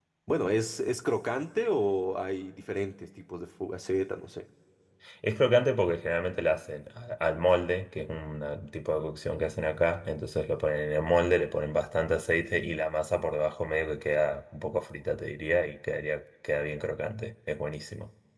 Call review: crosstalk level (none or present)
none